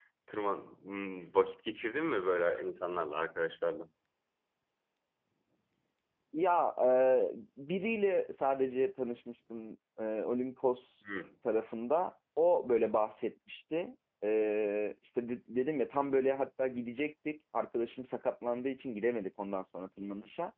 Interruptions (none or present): none